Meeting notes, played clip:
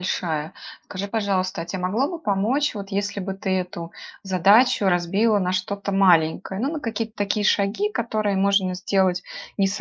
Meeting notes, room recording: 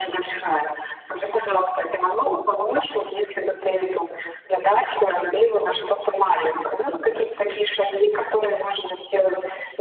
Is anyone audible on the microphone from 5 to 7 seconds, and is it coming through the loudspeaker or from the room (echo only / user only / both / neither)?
echo only